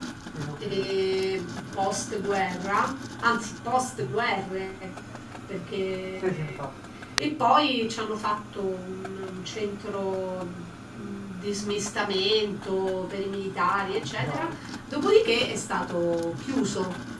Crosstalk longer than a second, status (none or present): none